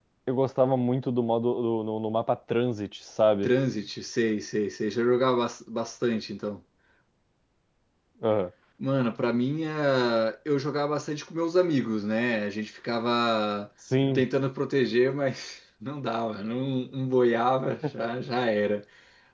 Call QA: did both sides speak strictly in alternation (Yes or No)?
Yes